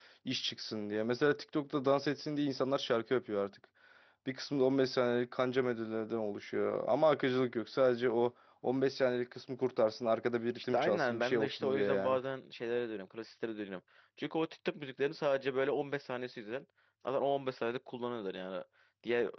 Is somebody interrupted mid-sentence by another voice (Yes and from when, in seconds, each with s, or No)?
Yes, from 10.6 s